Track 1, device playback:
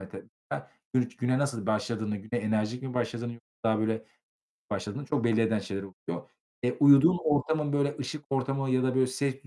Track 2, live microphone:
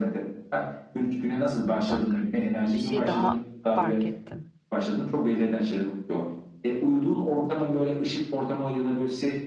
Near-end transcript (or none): Bak, bir şey daha fark ettim.